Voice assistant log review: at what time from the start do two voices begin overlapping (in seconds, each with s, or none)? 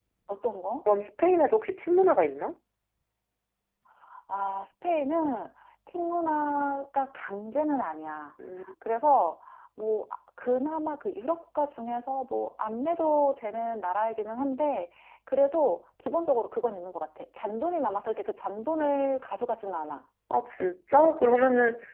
none